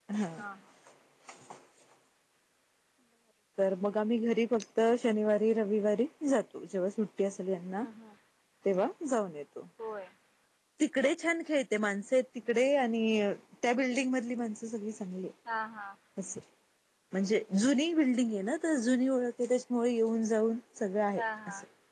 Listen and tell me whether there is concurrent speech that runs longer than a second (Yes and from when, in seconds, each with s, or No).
No